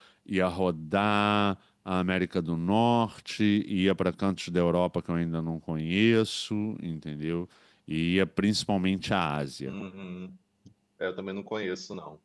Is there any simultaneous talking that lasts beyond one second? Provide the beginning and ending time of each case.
none

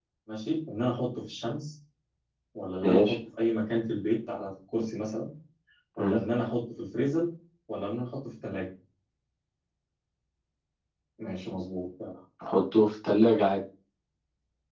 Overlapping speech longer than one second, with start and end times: none

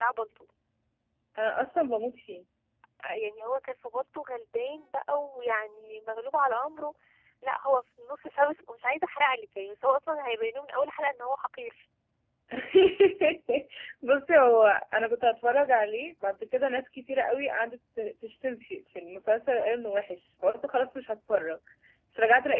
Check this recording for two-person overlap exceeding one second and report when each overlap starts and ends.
none

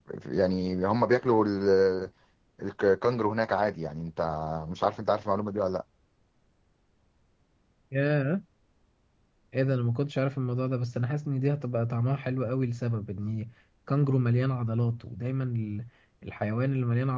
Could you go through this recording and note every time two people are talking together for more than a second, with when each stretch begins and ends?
none

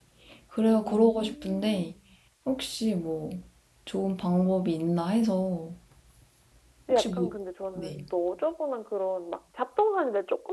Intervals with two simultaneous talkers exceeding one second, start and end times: 0.7-1.9

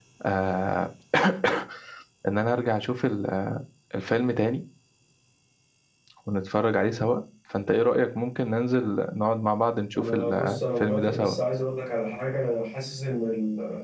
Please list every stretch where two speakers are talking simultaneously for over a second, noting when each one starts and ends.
10.0-11.3

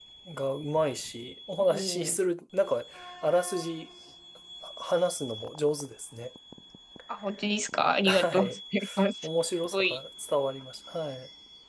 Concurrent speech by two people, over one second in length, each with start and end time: none

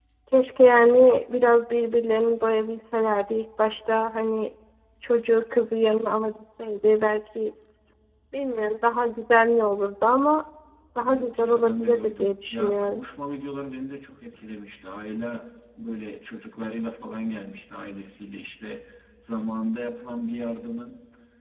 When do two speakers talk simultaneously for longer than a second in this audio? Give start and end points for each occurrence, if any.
11.1-13.0

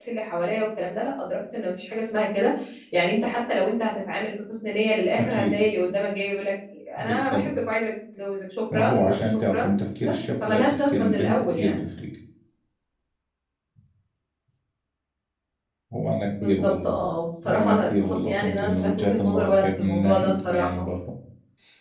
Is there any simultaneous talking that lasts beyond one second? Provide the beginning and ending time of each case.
8.7-11.8, 17.4-20.9

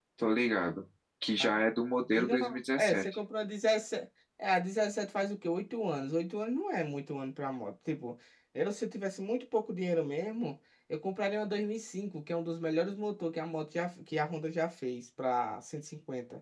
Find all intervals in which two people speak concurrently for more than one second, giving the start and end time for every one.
none

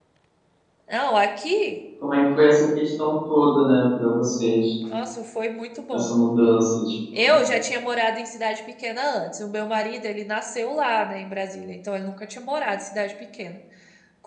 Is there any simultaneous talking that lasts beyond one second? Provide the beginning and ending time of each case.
none

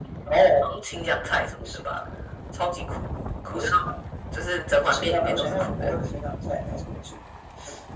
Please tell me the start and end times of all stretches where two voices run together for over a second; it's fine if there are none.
4.7-5.9

